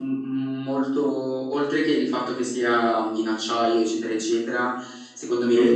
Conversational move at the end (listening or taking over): listening